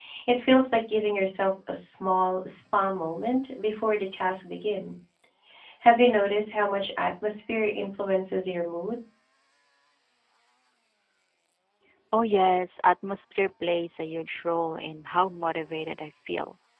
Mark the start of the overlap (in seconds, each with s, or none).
none